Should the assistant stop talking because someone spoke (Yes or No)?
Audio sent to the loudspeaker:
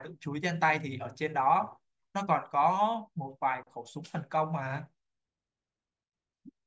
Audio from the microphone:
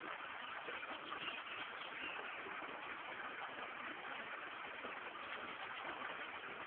No